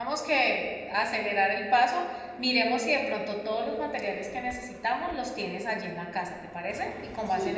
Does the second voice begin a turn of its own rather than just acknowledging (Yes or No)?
Yes